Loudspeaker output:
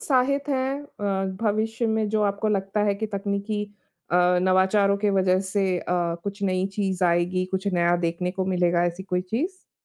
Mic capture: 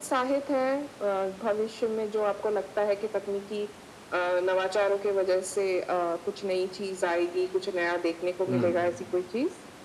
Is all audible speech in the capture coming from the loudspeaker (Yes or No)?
No